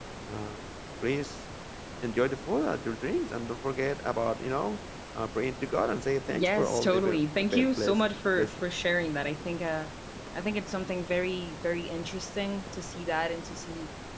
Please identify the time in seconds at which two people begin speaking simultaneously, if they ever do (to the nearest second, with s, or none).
6 s